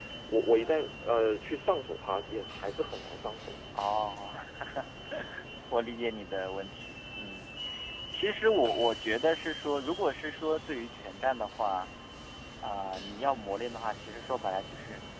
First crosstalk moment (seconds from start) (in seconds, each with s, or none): none